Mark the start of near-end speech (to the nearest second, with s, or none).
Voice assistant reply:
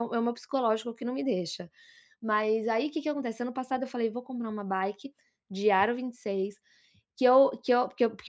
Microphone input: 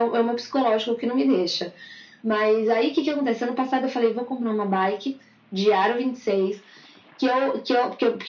none